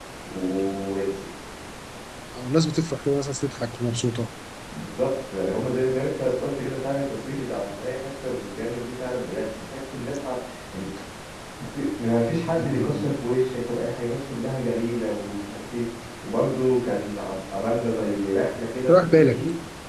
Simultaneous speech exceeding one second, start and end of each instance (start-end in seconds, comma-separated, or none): none